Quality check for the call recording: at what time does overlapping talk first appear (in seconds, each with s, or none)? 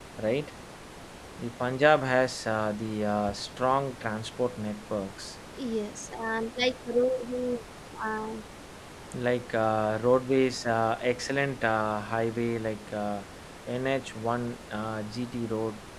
none